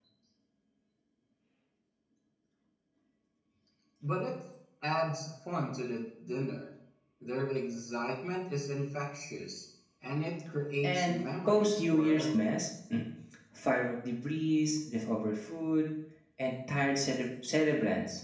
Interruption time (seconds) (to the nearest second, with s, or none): 11 s